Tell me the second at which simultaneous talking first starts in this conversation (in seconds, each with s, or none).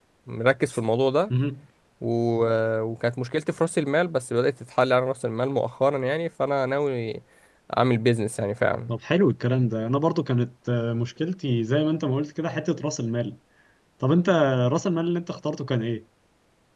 none